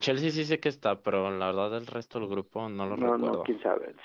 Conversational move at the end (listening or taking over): taking over